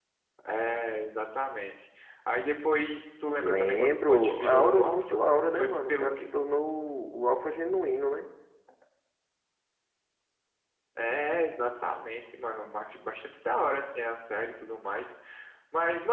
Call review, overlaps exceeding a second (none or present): present